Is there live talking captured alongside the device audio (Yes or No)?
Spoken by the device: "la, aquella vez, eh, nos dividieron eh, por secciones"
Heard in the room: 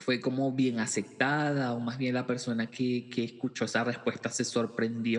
Yes